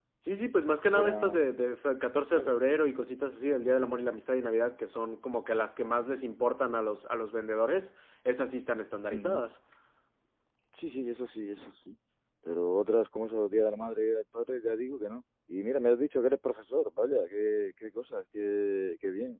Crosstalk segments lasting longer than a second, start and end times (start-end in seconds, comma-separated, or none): none